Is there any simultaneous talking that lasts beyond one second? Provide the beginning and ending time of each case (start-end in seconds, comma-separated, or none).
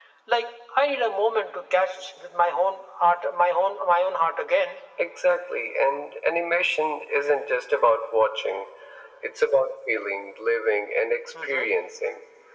none